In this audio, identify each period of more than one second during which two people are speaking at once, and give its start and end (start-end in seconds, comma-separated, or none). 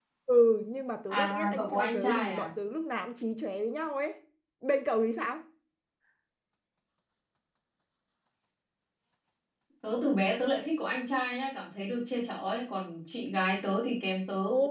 1.1-2.5